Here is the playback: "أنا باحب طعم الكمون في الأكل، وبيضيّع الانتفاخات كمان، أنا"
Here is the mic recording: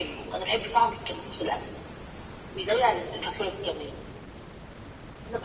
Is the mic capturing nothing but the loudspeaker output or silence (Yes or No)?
Yes